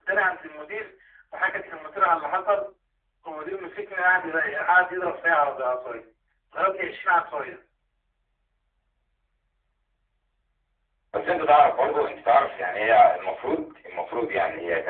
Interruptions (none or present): none